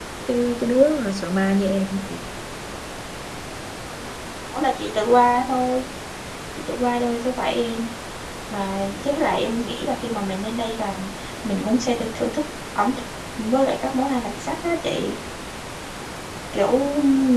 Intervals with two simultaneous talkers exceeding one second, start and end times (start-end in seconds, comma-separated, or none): none